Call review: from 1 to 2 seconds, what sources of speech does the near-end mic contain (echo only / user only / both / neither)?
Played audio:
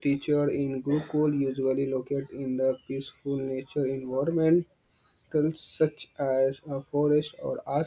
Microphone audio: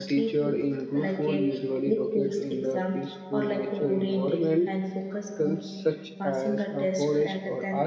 both